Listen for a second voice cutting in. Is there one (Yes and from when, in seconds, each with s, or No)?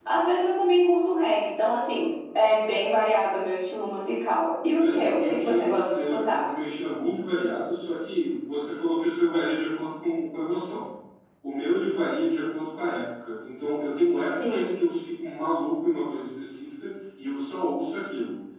Yes, from 4.7 s